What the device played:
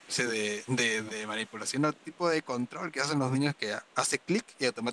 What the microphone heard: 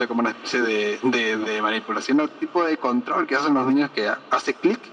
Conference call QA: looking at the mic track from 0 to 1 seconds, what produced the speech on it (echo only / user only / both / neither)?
echo only